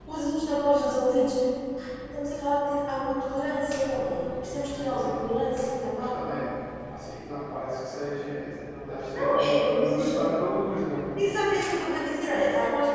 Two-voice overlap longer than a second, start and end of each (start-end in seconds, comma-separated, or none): 9.1-10.4